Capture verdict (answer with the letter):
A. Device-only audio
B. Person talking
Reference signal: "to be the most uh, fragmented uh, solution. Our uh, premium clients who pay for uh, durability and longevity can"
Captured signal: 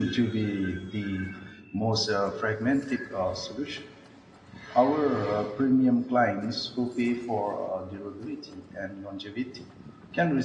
A